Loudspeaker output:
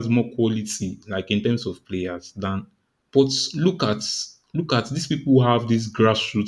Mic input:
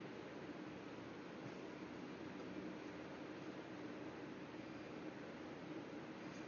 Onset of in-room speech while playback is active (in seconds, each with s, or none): none